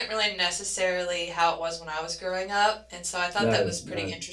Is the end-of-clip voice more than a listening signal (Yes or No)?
No